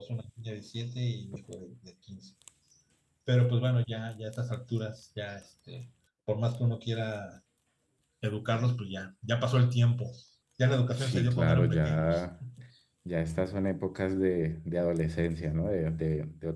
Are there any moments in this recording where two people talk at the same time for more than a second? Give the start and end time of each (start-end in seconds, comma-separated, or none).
11.0-12.2